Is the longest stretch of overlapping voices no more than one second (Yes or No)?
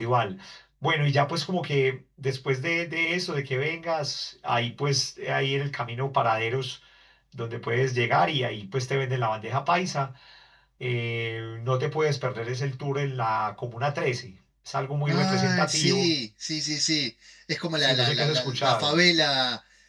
No